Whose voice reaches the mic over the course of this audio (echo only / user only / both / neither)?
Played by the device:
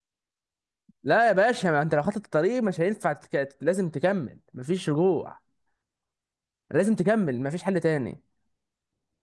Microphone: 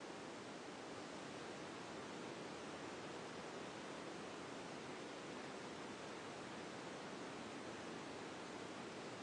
neither